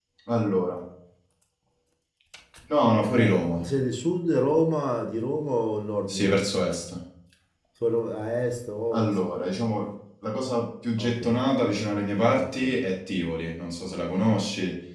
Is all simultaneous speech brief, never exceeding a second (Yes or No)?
Yes